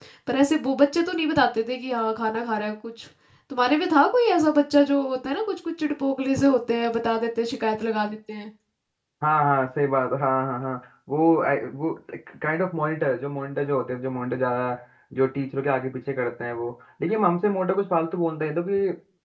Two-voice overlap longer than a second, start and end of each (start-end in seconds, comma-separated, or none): none